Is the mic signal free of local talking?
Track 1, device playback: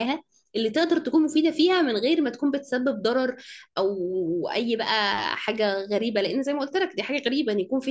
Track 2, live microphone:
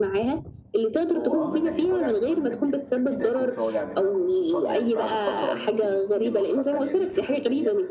No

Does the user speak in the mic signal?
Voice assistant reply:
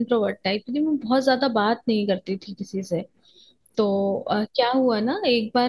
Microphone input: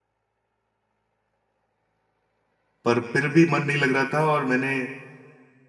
Yes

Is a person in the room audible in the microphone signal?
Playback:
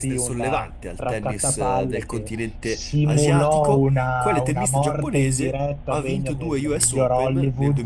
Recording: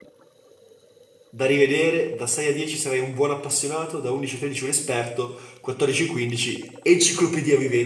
Yes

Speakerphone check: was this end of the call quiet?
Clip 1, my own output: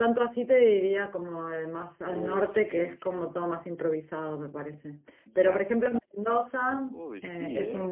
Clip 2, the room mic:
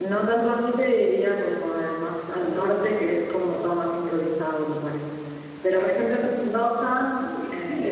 Yes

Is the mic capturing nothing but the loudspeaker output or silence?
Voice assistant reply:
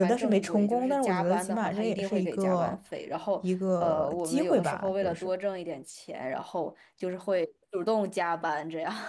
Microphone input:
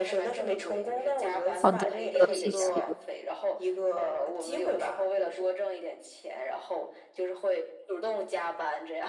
No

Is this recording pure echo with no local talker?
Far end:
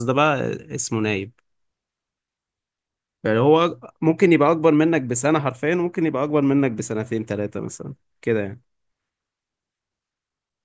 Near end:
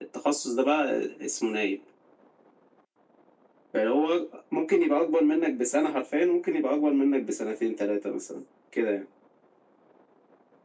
Yes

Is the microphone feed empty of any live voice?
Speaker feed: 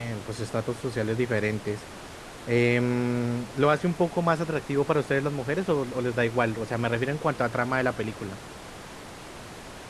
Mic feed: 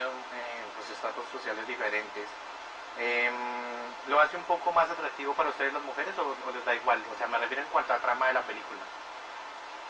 Yes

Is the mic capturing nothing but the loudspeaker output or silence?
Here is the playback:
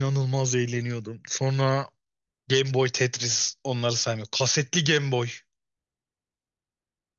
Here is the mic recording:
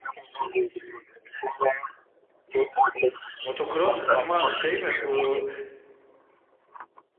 No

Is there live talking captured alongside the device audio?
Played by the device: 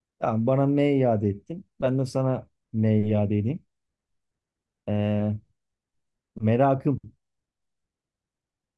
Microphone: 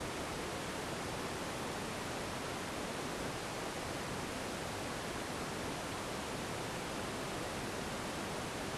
No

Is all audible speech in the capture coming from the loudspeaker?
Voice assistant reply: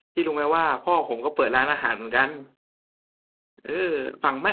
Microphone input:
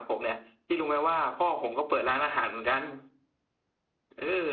Yes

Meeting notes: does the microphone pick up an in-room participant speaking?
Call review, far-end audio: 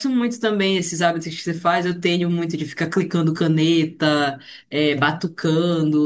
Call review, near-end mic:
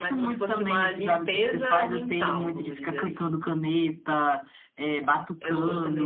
Yes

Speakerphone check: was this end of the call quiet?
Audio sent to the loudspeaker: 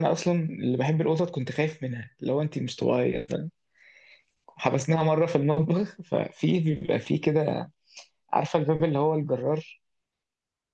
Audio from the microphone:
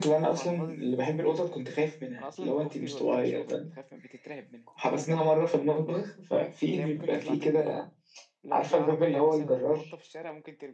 No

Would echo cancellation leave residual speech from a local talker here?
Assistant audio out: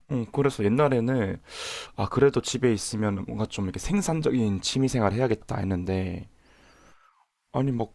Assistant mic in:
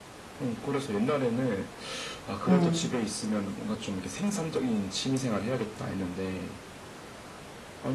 Yes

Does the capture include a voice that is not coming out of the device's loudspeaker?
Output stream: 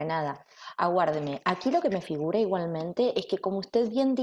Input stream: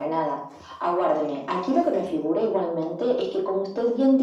No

